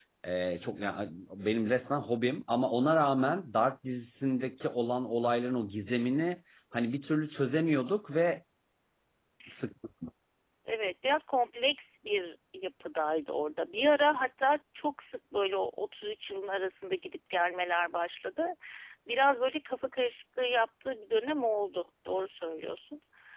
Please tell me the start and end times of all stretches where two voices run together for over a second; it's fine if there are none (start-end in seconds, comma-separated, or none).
none